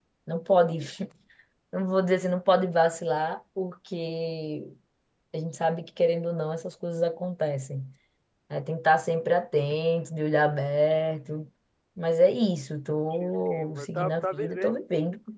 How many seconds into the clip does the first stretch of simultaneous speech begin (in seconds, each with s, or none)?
13.2 s